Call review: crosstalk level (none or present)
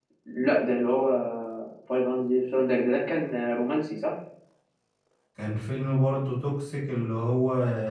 none